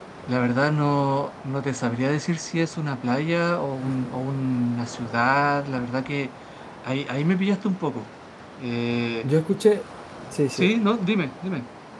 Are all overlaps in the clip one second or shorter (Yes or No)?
Yes